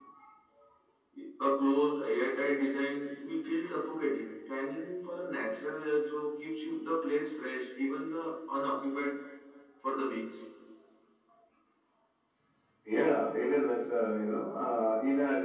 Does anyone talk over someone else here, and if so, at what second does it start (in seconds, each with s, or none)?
none